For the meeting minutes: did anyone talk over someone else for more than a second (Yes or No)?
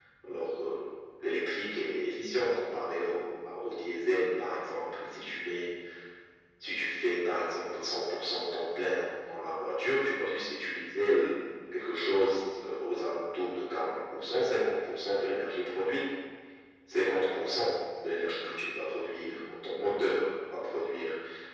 No